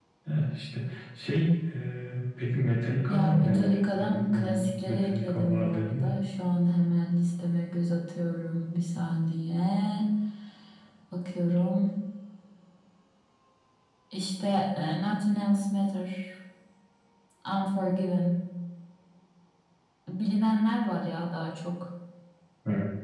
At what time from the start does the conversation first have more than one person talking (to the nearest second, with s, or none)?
3 s